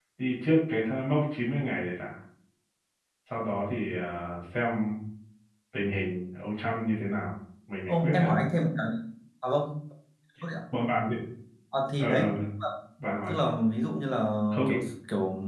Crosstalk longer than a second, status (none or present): none